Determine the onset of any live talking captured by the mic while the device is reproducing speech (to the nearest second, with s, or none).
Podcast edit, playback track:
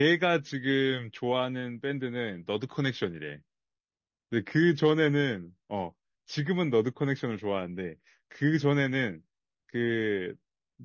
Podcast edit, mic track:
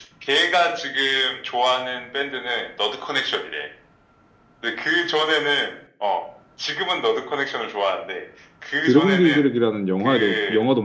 9 s